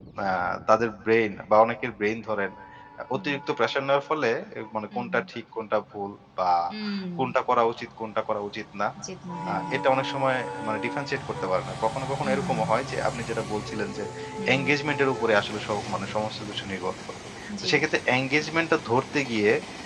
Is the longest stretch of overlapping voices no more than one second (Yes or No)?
Yes